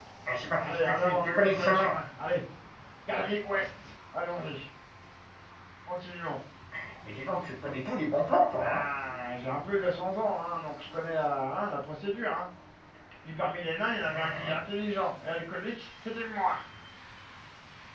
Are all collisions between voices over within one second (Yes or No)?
No